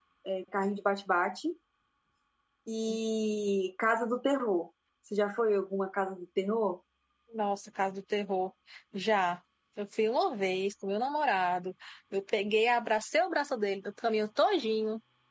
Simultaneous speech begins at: none

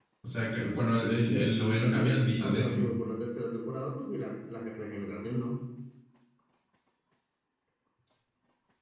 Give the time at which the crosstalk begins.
1.3 s

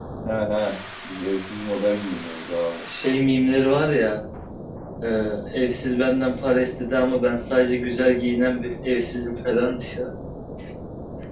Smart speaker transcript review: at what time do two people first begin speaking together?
none

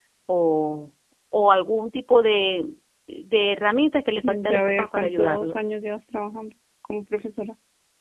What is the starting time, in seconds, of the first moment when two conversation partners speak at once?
4.2 s

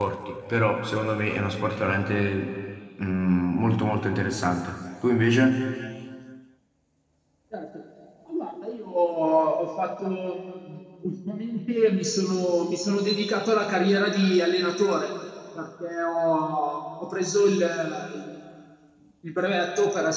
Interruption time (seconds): none

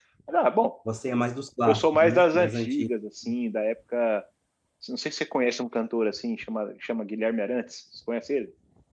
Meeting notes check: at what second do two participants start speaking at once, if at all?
1.7 s

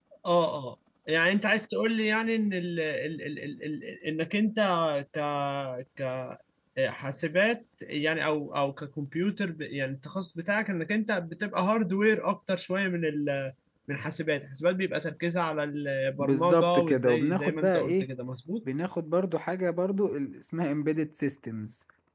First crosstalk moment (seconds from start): 16.2 s

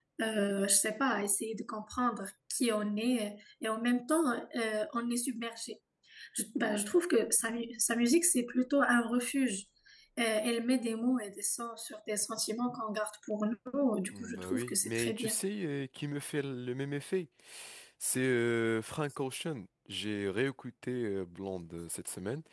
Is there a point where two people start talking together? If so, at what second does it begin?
14.1 s

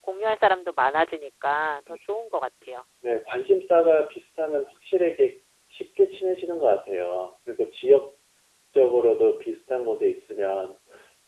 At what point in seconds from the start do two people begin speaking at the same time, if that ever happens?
none

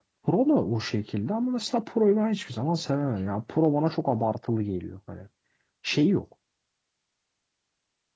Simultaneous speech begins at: none

